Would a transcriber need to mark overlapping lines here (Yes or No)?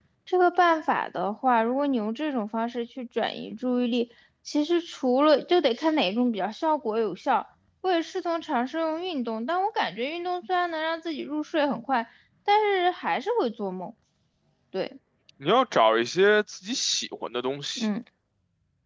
No